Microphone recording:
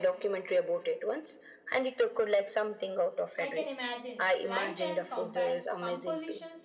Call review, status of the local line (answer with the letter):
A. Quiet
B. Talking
B